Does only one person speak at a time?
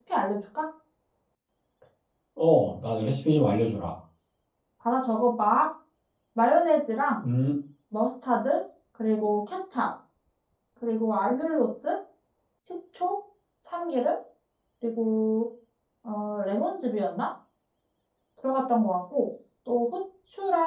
Yes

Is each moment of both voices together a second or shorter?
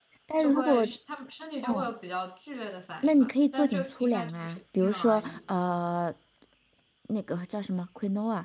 No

